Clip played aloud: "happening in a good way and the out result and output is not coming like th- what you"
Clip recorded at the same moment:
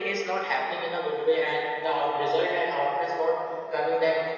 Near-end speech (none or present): none